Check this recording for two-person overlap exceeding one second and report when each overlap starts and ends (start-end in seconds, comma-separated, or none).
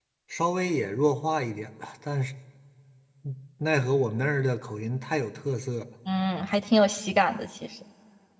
none